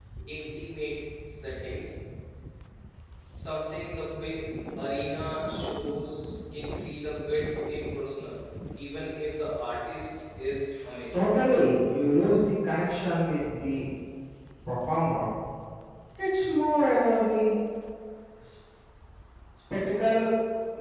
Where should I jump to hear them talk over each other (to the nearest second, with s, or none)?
none